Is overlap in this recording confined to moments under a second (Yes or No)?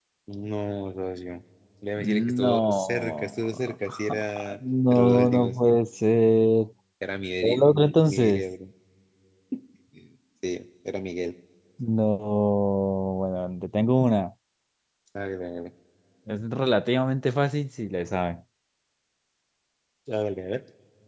No